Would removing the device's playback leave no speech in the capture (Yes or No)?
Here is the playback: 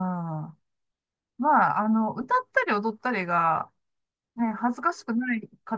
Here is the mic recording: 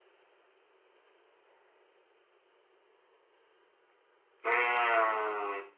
No